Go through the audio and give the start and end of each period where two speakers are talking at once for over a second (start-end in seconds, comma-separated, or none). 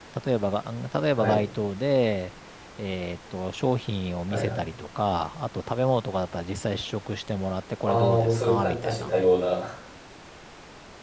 7.8-9.1